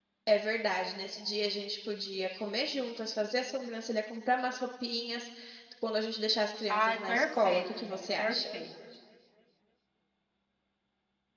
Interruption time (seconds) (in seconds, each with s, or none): 6.7 s